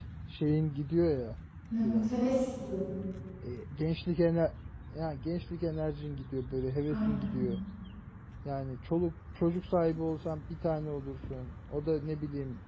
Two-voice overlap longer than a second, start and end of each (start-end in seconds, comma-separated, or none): none